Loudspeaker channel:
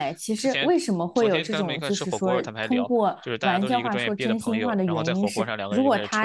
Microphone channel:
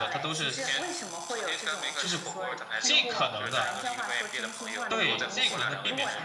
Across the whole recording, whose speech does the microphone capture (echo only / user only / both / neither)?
both